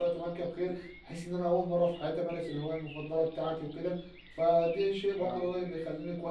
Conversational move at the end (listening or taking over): listening